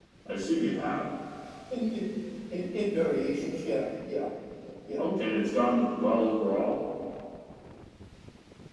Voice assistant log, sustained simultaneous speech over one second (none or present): none